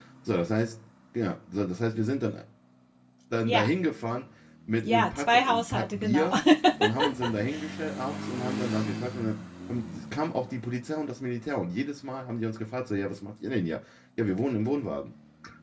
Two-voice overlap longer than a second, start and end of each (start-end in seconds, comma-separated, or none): 4.8-6.3